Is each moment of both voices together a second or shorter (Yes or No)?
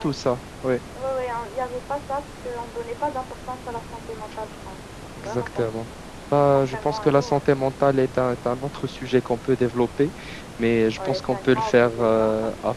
No